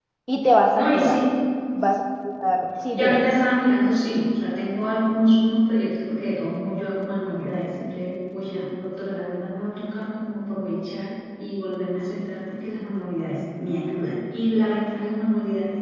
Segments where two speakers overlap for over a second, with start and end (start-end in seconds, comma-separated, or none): none